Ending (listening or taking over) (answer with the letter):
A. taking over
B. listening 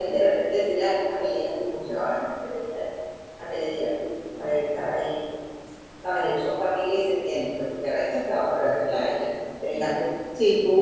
B